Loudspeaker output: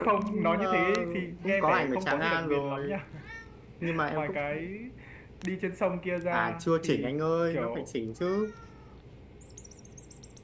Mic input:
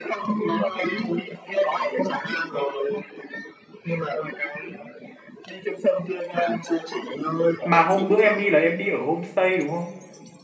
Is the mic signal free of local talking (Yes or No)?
No